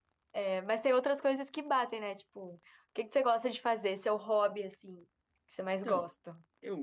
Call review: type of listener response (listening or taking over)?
taking over